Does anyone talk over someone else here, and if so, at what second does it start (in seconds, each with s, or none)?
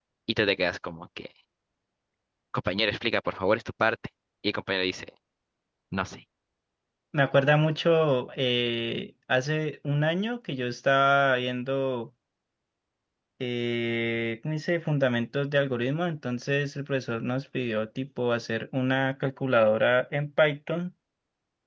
none